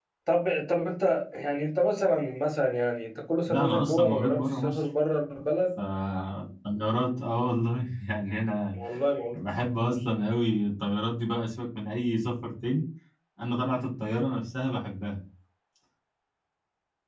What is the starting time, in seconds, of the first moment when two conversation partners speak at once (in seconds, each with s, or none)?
3.5 s